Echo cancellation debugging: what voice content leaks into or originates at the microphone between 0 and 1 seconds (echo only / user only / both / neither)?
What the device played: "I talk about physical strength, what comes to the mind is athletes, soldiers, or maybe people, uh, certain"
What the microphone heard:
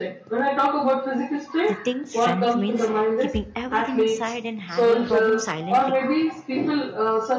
echo only